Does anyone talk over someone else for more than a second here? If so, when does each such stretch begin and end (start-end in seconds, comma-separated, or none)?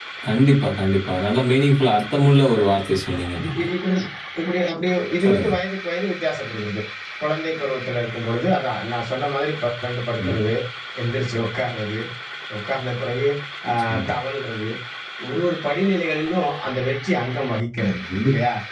none